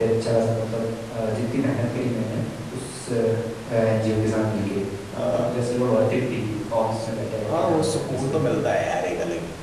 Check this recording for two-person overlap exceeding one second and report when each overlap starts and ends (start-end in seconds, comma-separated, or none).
7.0-8.6